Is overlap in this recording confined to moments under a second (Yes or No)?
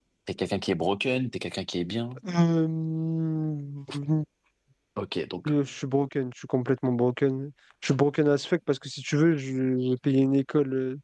Yes